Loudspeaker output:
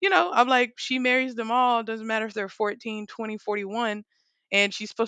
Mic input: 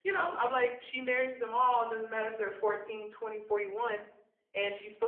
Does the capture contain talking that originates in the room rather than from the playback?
No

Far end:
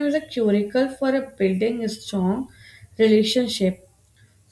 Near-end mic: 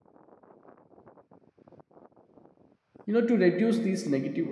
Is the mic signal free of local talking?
No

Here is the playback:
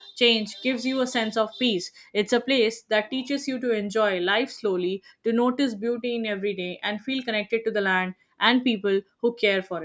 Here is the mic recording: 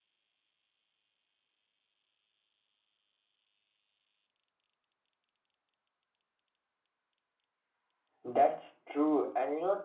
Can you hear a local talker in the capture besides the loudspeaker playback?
Yes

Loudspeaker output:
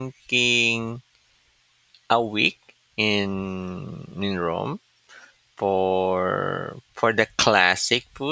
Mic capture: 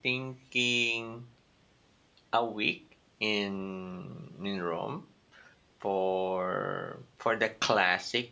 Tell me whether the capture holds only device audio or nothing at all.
Yes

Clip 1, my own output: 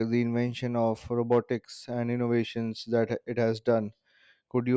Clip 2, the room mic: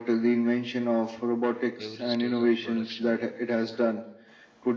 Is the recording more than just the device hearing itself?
Yes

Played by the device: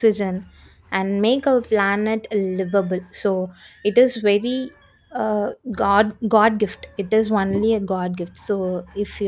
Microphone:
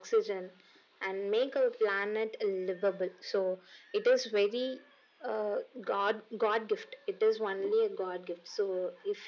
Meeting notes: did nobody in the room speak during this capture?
Yes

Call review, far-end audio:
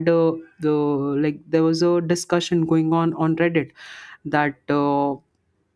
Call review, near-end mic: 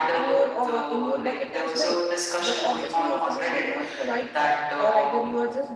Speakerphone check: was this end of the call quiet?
No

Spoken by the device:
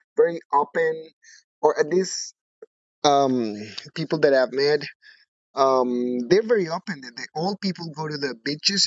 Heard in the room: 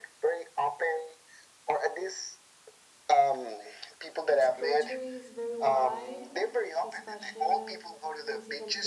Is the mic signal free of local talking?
No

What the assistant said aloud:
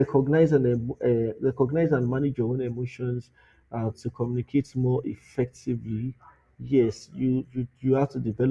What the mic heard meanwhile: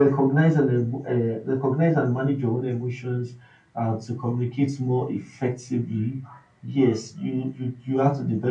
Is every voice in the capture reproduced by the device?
Yes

